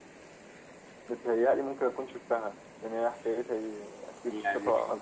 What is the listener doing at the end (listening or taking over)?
taking over